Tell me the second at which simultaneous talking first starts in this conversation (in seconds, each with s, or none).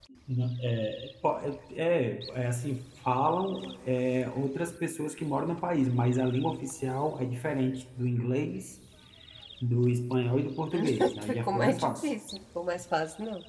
10.7 s